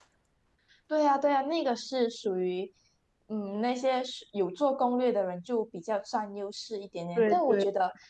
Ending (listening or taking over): listening